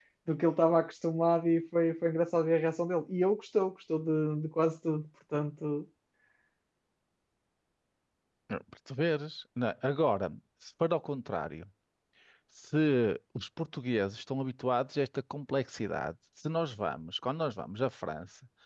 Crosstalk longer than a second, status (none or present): none